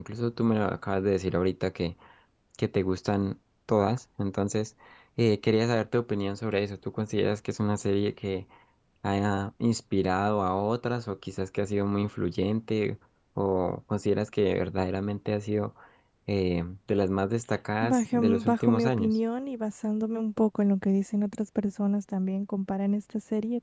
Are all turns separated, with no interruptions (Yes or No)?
No